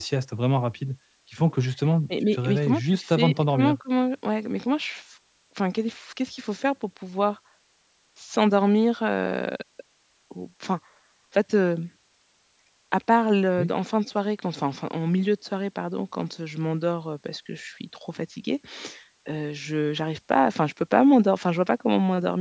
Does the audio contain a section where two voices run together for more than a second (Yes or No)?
Yes